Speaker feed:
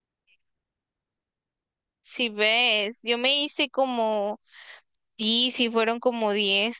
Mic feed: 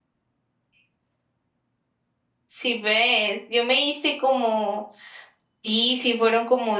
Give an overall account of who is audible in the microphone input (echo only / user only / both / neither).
echo only